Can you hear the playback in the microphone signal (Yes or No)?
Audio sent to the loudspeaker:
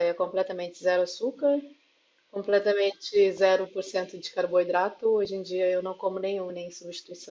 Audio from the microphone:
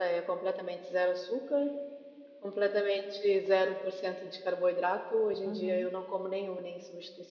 Yes